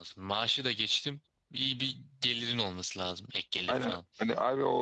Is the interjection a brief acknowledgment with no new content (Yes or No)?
No